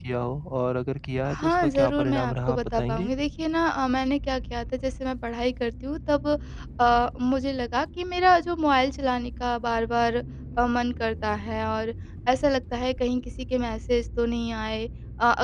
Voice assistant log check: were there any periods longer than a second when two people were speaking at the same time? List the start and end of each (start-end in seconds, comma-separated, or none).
1.3-3.1